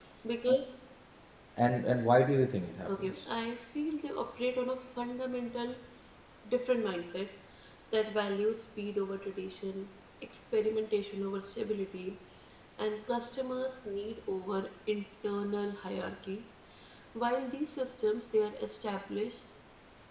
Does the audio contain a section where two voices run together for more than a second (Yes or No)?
No